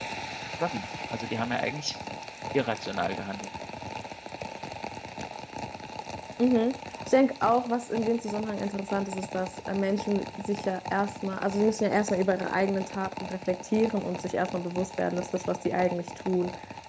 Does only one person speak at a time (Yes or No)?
Yes